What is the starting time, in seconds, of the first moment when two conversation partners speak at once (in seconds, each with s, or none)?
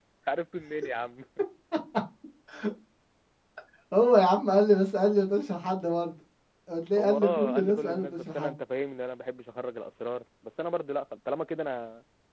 7.0 s